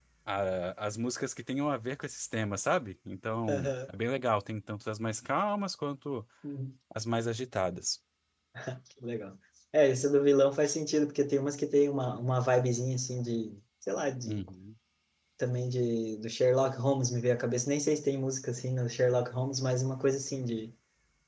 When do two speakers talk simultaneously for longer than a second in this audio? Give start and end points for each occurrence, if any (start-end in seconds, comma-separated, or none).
none